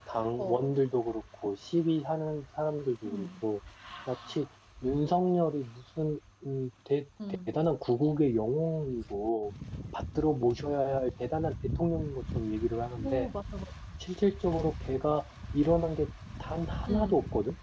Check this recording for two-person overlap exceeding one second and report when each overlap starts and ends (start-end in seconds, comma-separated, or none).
none